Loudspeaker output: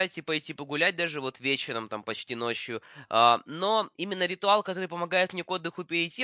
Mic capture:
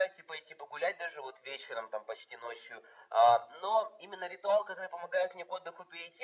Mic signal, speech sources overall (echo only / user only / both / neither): echo only